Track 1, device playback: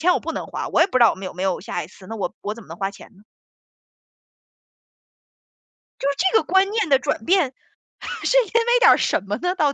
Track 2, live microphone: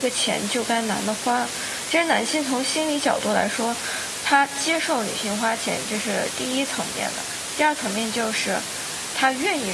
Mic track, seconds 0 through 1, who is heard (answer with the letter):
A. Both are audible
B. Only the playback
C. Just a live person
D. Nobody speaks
C